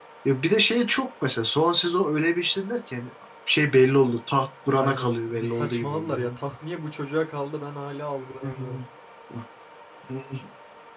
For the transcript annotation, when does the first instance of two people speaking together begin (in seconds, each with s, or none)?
4.7 s